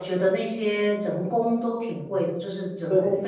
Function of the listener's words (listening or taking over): listening